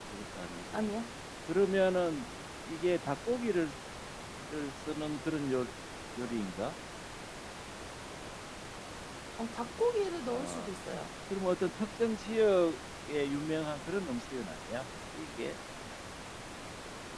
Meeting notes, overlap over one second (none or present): none